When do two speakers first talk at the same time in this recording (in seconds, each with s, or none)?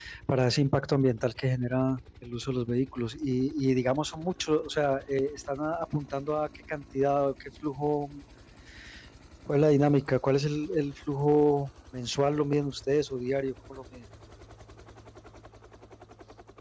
none